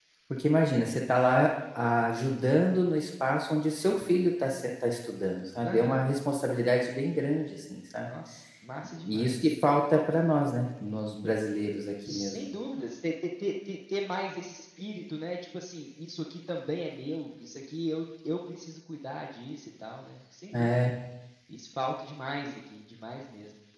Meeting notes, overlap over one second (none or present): none